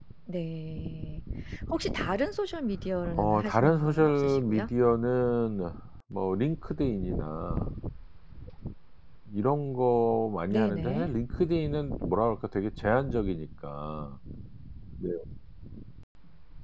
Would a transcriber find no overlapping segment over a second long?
No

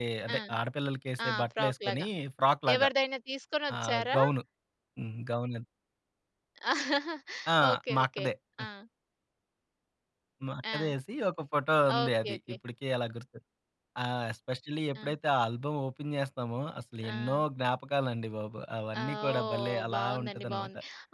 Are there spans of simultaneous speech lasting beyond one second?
Yes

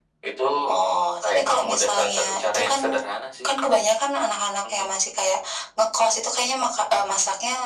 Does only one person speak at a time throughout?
No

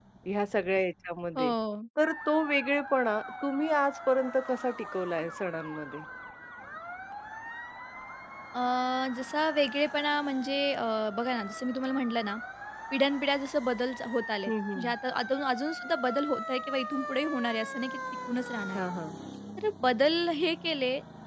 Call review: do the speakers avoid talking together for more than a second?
Yes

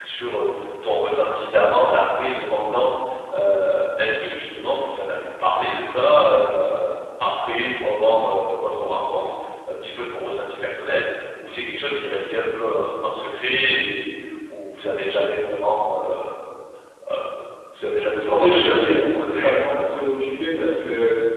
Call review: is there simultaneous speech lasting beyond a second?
Yes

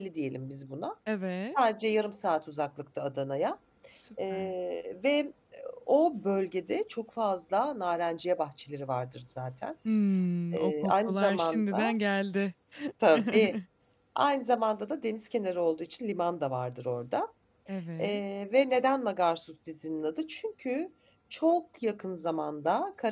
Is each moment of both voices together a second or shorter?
No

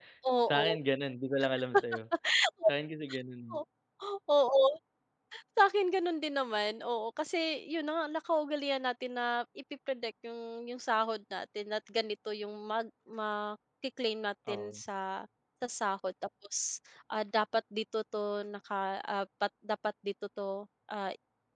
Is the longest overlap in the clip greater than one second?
No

